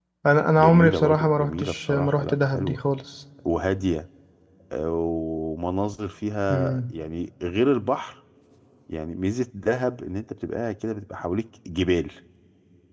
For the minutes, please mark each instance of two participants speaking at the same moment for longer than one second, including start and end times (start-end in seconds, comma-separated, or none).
0.6-2.8